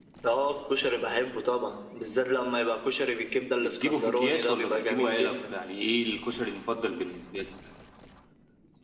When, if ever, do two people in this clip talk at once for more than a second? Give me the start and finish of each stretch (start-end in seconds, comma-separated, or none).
3.6-5.5